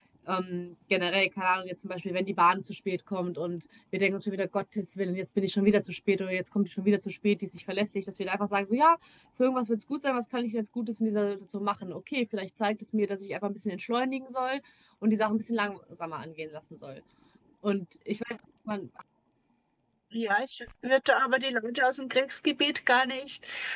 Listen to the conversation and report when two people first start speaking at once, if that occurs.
none

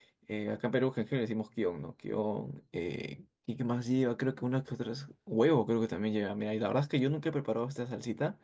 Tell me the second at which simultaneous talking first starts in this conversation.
none

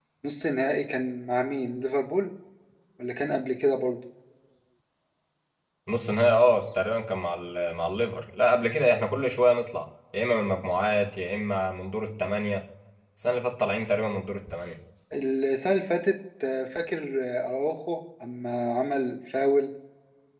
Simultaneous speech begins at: none

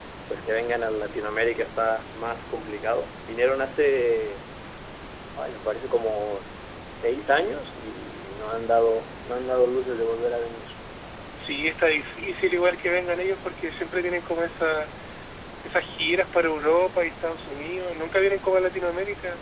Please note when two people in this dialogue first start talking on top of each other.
none

